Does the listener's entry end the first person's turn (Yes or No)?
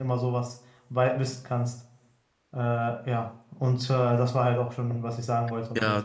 Yes